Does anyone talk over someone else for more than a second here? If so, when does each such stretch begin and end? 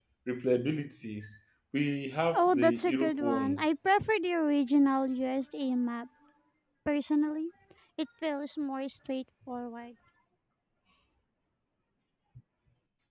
2.3-3.6

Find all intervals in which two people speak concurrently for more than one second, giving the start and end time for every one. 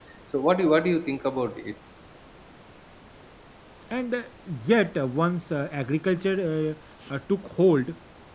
none

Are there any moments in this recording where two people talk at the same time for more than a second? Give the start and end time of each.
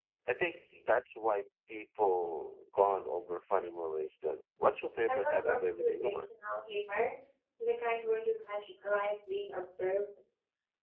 5.0-6.3

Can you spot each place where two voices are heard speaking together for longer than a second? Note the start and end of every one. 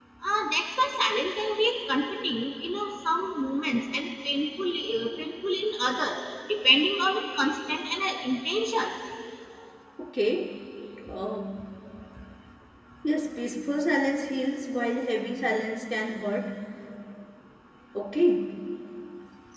none

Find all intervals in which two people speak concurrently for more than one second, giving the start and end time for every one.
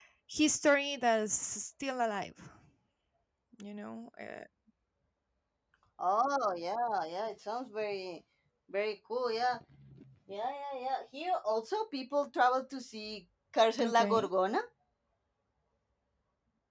none

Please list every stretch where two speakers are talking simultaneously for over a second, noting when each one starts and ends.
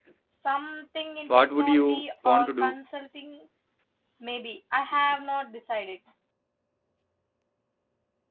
1.3-2.8

